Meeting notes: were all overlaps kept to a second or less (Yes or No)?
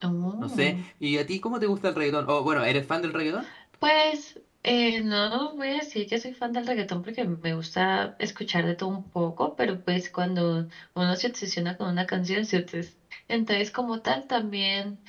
Yes